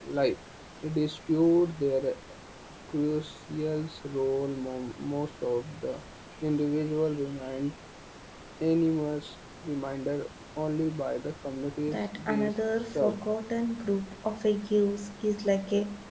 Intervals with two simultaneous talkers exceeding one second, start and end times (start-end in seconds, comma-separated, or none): 11.9-13.3